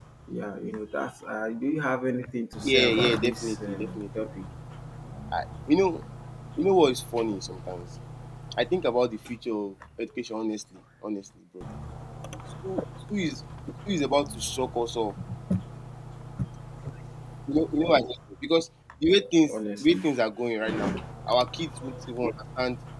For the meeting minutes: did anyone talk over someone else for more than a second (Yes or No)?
Yes